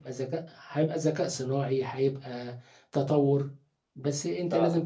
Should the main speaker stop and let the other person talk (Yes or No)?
No